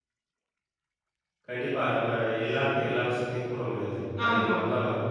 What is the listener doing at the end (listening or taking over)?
listening